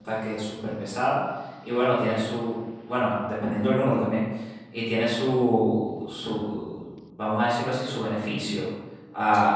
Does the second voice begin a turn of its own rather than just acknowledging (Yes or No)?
No